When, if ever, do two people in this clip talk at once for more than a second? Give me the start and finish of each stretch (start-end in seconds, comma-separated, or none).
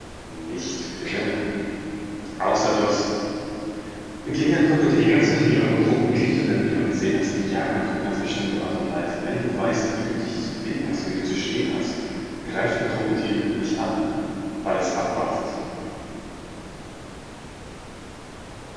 4.9-6.4